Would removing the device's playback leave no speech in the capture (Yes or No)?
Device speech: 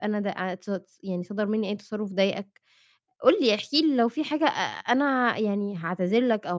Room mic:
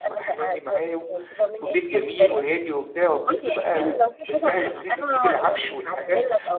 No